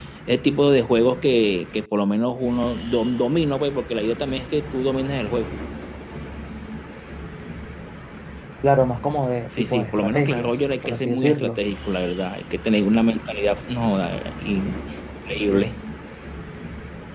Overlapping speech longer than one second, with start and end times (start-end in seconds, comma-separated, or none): 9.6-11.6